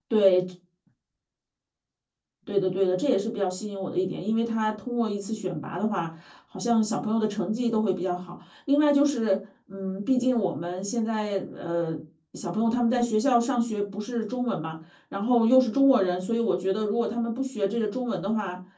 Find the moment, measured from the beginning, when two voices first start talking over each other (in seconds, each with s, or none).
none